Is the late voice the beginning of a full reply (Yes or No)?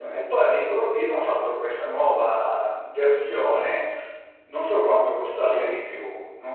No